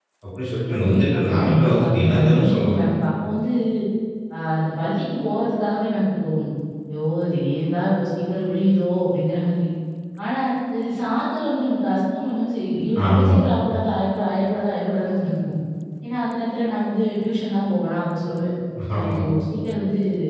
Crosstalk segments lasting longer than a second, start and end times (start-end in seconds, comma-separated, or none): 0.7-2.8